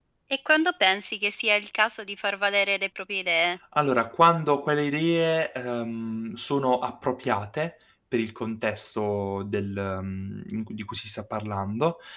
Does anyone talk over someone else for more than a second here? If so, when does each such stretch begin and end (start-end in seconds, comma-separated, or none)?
none